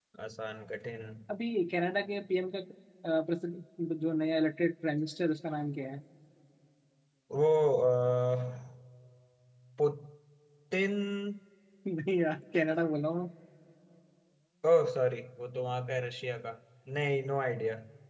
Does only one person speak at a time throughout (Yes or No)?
Yes